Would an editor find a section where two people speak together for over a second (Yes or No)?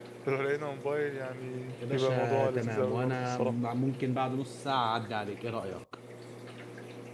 Yes